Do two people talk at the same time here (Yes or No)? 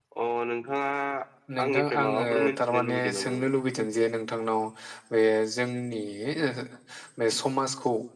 Yes